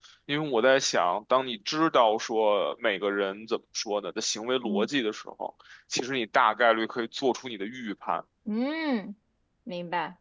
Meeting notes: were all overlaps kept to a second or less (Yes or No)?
Yes